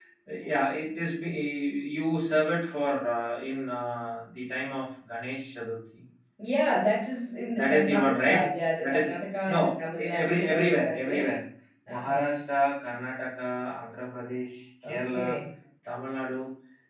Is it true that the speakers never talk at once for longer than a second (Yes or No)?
No